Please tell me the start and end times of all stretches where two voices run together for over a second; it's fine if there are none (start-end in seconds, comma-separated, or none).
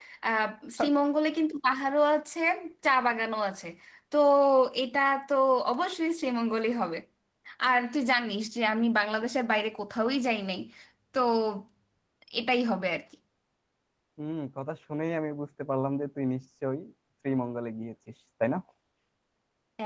none